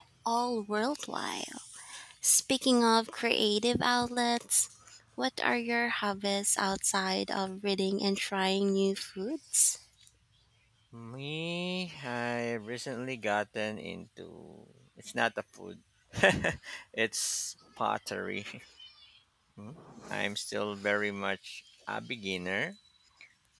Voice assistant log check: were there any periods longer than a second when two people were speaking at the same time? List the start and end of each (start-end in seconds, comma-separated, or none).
none